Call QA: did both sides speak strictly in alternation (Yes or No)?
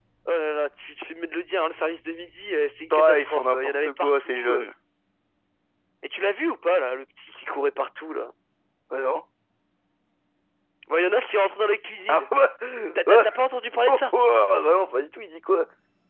No